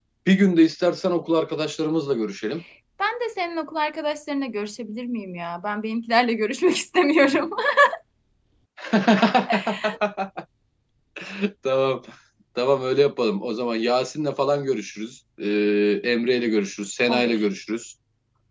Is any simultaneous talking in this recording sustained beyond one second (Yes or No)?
No